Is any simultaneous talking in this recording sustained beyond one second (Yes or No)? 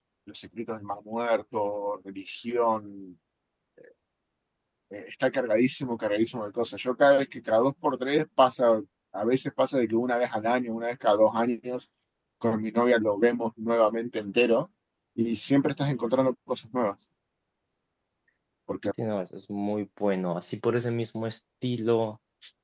No